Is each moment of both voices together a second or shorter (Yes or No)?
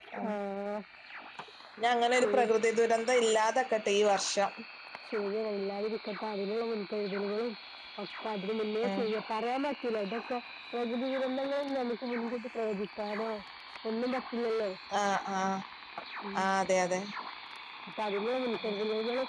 Yes